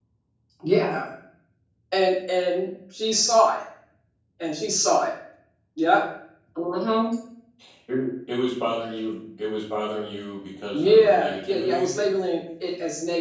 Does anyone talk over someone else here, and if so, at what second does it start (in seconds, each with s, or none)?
10.7 s